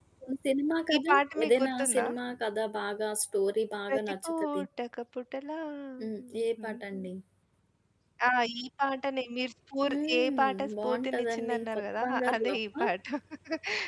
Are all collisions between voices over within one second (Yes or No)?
No